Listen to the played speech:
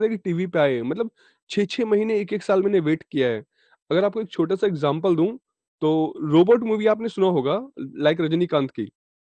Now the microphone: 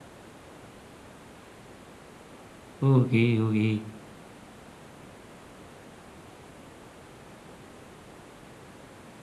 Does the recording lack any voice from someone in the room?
No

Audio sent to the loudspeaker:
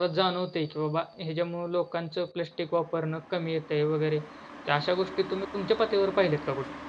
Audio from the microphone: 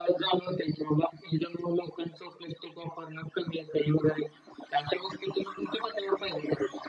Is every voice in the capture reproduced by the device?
Yes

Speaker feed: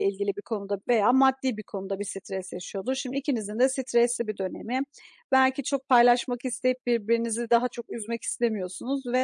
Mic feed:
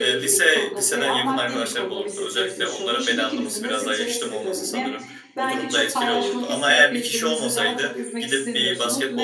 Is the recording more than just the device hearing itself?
Yes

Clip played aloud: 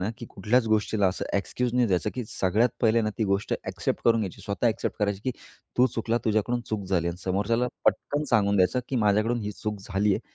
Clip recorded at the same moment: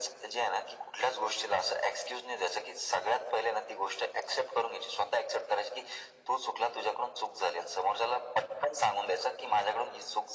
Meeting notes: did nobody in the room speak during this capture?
Yes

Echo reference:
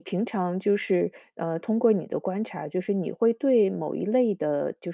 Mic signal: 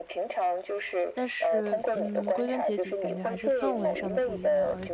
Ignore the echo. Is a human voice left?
Yes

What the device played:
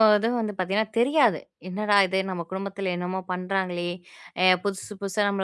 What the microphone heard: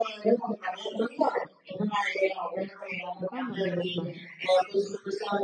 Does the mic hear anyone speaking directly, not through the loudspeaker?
Yes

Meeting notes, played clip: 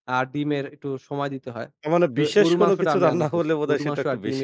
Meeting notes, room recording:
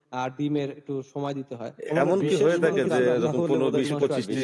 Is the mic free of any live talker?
No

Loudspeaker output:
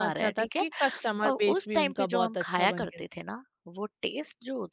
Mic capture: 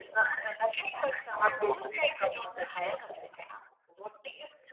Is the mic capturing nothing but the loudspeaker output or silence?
Yes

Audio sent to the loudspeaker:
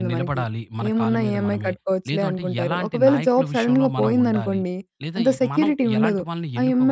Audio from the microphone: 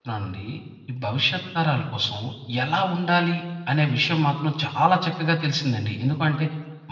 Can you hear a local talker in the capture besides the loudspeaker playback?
Yes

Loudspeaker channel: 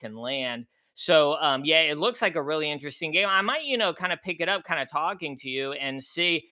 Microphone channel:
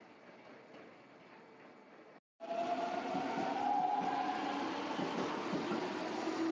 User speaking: No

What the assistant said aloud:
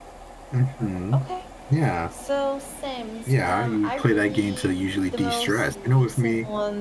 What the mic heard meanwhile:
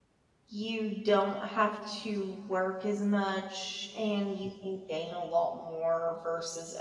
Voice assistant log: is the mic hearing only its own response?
No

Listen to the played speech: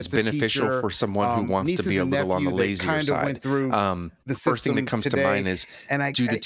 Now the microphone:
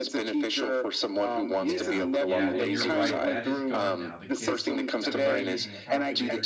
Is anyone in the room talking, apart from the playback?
Yes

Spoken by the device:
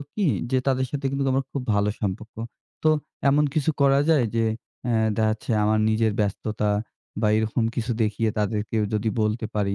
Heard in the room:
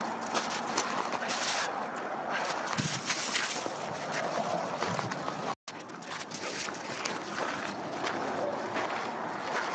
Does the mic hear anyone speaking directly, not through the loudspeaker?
No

